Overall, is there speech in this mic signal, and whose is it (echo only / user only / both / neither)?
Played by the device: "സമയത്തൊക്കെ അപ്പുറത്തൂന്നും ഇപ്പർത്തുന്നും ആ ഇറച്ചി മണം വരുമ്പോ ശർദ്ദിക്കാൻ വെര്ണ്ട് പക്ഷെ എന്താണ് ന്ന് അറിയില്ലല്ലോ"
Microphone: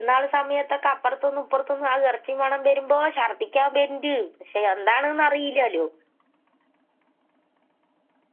echo only